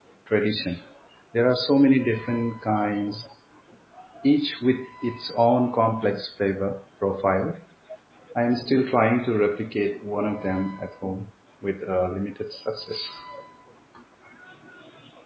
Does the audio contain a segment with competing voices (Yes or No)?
No